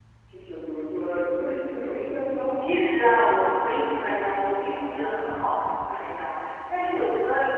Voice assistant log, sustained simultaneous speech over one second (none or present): none